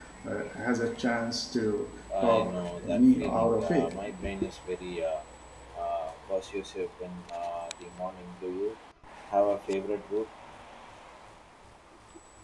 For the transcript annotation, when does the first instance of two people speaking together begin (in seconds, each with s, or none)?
2.1 s